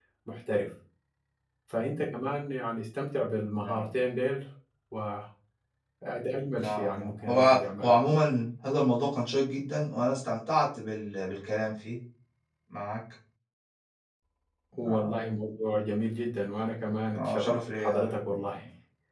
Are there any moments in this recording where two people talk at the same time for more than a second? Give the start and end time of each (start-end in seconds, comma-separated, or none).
6.5-8.0, 17.1-18.5